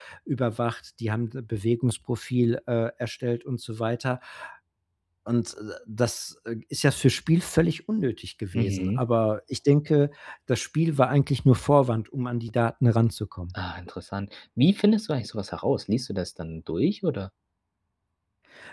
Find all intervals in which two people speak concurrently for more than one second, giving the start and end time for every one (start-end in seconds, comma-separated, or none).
none